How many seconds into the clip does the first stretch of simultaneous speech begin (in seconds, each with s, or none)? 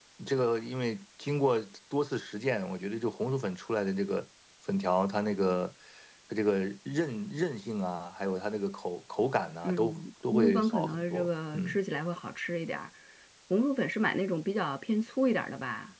9.6 s